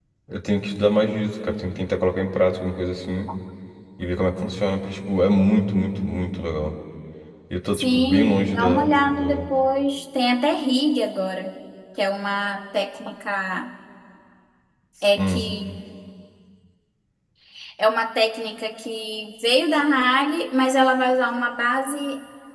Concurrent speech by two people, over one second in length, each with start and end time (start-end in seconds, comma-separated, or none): 7.7-9.5